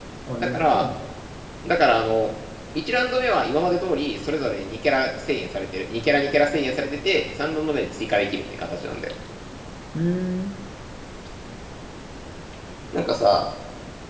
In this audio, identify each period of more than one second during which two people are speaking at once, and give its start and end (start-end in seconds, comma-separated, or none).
none